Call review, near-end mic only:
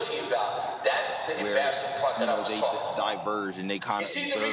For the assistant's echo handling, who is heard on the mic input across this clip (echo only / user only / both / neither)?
both